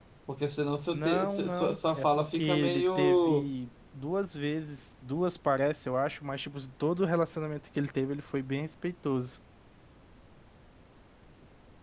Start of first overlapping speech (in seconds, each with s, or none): 0.9 s